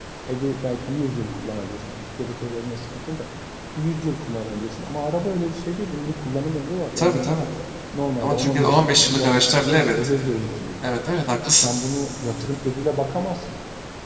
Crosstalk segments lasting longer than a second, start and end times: 8.2-9.9

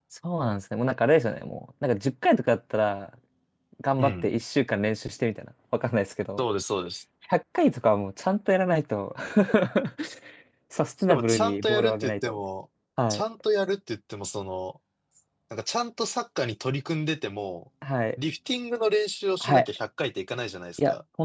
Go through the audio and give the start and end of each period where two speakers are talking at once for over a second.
11.0-12.4

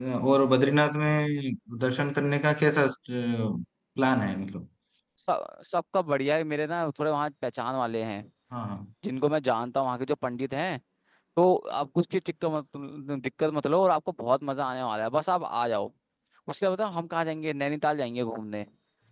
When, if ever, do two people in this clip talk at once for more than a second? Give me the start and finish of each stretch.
none

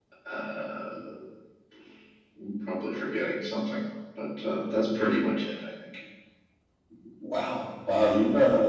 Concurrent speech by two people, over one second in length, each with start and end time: none

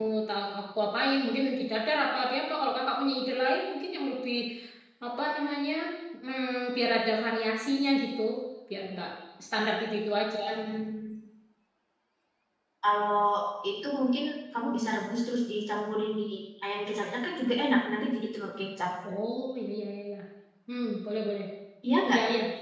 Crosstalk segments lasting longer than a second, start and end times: none

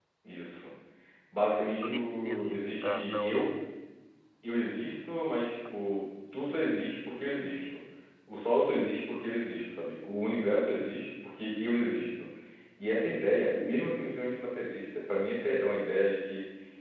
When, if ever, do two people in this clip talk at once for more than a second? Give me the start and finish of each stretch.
1.8-3.5

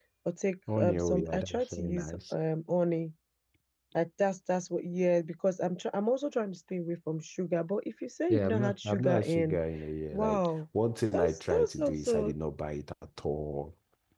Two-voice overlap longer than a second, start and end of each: 0.8-2.3, 8.3-9.6, 11.1-12.3

